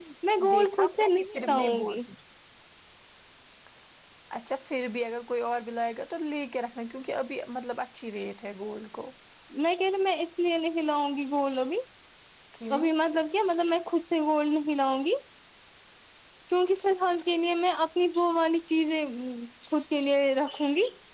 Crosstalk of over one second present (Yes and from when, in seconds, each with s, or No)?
Yes, from 0.5 s